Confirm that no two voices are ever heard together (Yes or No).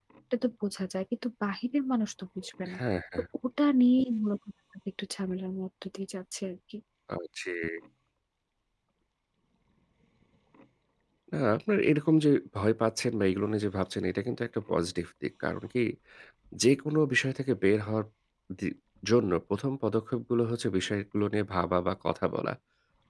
Yes